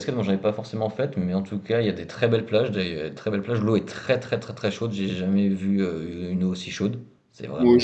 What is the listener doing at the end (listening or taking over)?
taking over